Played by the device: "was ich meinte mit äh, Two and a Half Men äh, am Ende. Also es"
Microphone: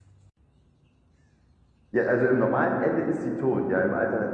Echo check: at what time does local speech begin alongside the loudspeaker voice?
1.9 s

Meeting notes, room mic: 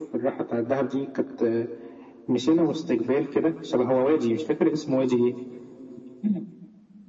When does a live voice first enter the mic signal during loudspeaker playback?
none

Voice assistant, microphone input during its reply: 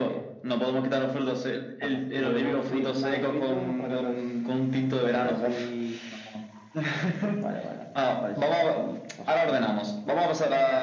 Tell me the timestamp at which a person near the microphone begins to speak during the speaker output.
none

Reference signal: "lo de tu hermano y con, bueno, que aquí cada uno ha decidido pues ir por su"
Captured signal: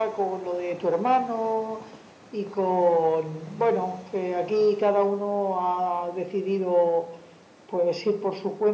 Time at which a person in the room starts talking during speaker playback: none

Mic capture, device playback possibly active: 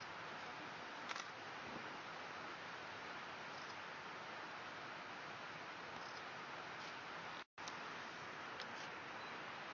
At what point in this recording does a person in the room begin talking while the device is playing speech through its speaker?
none

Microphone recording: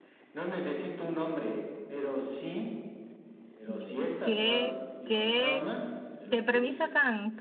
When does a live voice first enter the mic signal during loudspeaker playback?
3.7 s

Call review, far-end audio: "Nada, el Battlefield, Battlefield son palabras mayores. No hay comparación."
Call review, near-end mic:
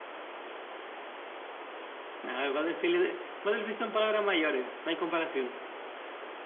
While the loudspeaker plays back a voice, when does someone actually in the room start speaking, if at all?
none

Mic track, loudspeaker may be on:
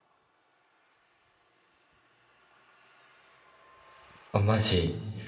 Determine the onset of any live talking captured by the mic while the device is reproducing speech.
4.3 s

